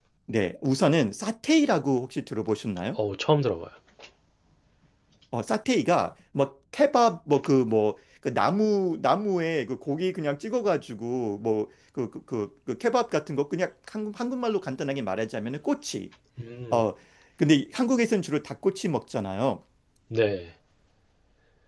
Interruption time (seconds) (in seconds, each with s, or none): none